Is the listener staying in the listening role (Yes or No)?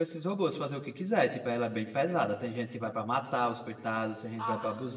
Yes